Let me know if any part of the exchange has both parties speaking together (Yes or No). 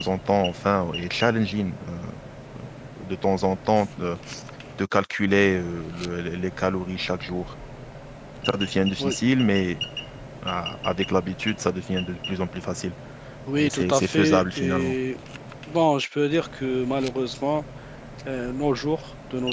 Yes